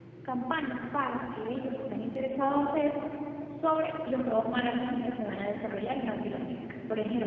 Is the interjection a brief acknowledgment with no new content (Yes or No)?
Yes